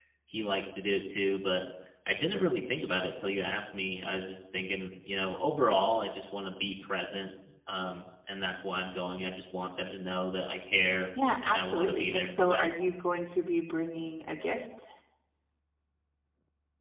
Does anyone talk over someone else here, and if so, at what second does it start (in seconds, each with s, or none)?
11.4 s